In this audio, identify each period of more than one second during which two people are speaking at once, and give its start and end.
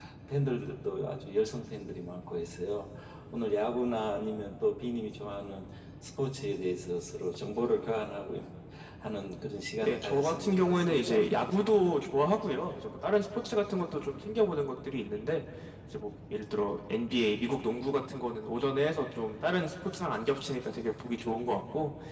9.8-11.3

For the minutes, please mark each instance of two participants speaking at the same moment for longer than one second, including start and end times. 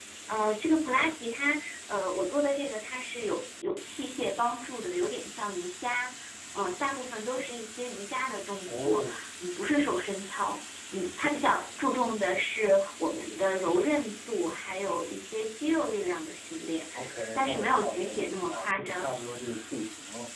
17.4-19.1

